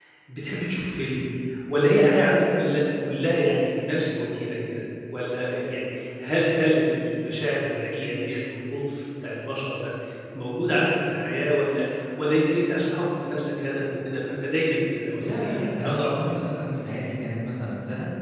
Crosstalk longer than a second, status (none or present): present